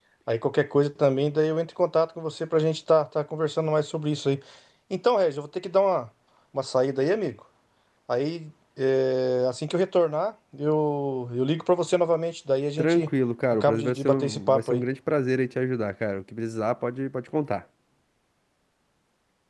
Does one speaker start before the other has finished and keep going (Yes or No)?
Yes